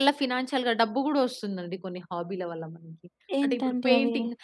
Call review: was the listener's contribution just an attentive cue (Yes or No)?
Yes